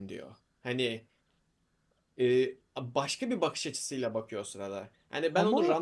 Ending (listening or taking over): listening